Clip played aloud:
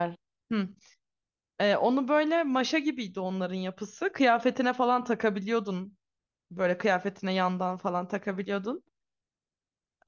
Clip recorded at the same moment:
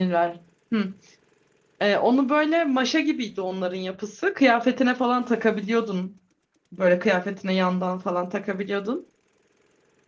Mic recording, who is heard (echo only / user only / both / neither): echo only